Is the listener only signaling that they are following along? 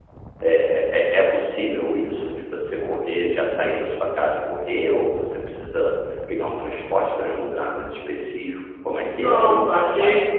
No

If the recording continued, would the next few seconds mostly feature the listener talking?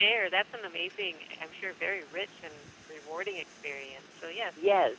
Yes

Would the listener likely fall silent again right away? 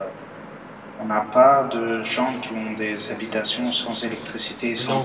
No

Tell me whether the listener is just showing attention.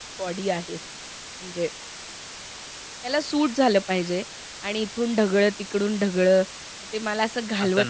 Yes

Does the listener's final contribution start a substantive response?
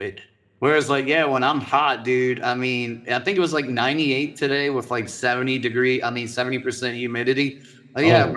No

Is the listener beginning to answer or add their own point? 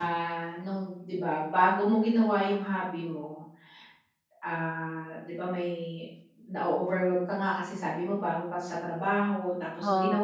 No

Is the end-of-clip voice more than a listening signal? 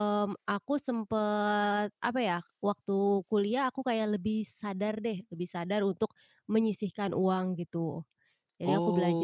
Yes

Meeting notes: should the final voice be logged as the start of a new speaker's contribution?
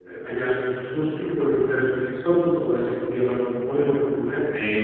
Yes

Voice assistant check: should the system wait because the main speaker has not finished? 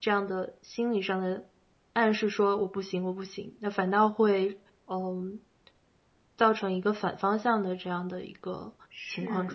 No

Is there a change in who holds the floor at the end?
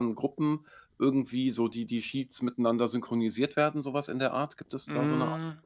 Yes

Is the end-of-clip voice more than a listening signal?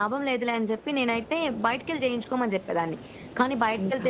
No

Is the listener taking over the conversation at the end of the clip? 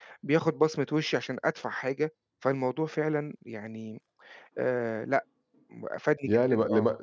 Yes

